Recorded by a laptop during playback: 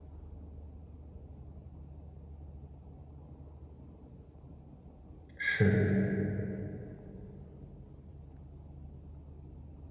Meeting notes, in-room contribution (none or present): present